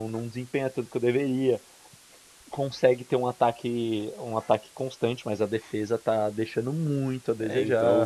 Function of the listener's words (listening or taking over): taking over